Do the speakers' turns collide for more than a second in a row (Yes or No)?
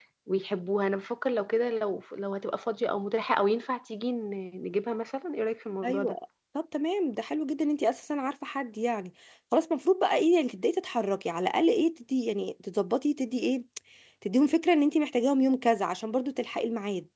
No